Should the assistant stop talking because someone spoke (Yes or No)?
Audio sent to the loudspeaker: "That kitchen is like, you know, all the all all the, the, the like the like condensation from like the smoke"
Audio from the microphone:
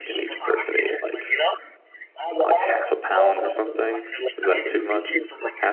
Yes